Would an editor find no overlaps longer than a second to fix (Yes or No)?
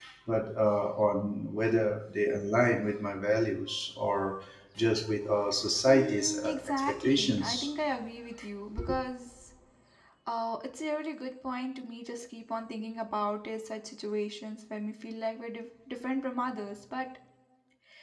No